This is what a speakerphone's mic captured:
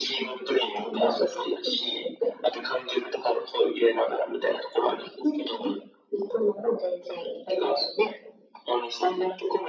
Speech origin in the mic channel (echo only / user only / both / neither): echo only